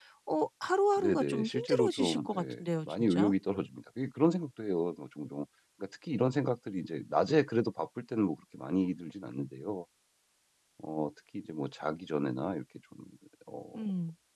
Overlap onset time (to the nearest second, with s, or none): 1 s